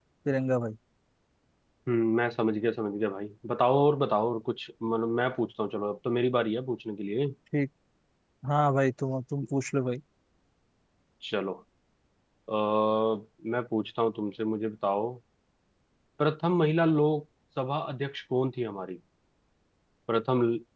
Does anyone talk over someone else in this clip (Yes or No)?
No